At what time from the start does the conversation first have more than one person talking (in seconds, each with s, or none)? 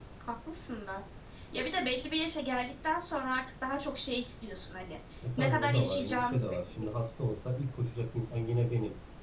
5.4 s